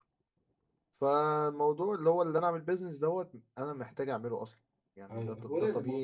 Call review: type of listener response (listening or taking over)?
taking over